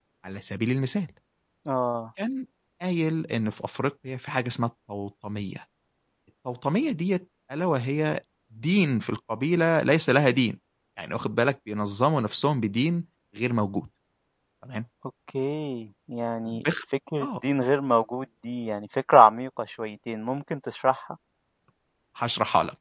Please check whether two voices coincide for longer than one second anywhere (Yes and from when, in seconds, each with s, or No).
No